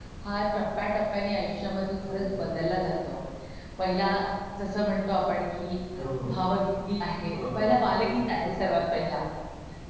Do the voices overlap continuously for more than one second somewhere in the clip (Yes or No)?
Yes